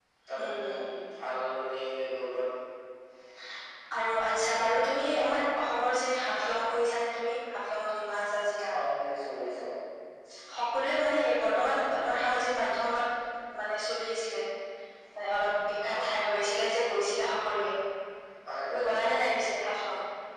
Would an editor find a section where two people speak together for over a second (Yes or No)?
No